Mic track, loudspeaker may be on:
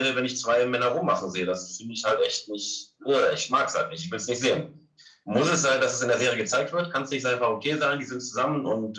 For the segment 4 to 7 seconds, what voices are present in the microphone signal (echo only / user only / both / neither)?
echo only